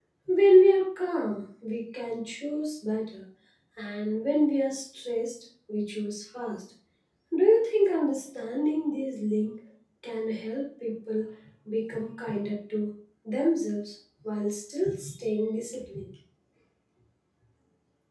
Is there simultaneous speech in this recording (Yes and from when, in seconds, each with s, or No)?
No